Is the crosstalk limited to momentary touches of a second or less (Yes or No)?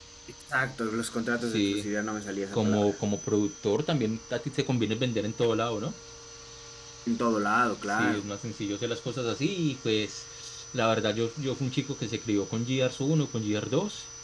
Yes